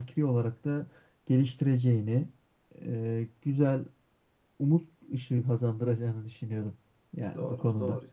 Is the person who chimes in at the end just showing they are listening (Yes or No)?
No